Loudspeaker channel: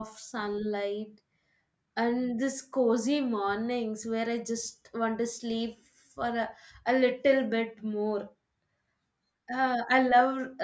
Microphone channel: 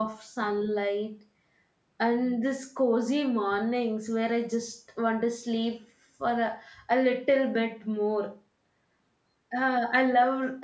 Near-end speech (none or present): none